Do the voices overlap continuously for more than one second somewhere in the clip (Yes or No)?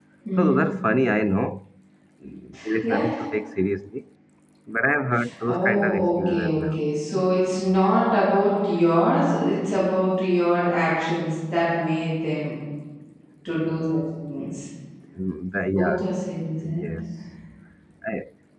Yes